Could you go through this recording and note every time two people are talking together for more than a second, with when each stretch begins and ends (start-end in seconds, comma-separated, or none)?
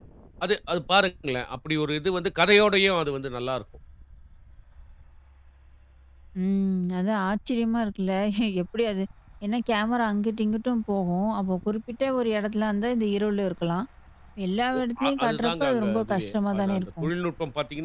15.2-17.1